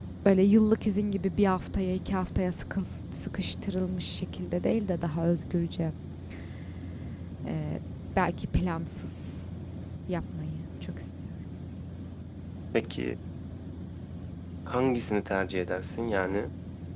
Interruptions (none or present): none